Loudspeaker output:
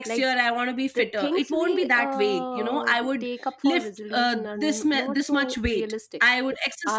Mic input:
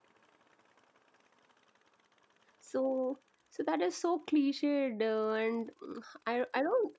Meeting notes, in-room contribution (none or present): present